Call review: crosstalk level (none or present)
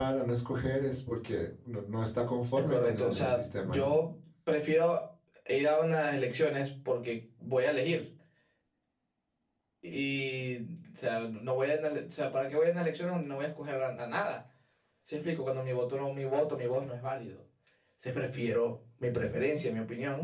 present